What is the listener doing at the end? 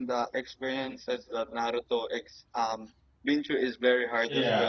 taking over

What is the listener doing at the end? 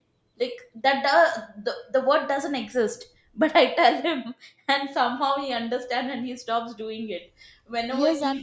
taking over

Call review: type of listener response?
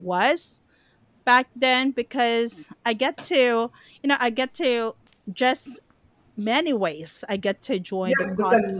taking over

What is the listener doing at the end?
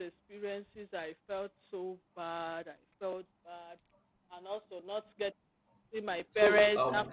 listening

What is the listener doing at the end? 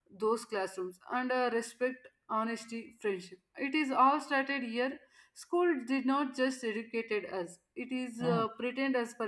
listening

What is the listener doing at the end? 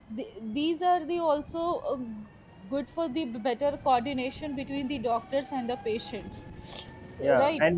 taking over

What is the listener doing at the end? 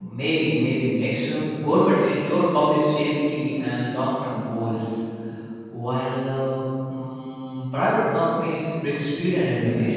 taking over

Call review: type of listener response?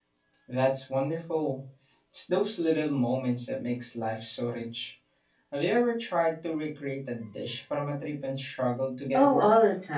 taking over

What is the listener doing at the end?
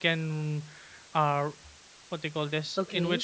taking over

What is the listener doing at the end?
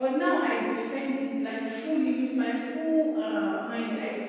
listening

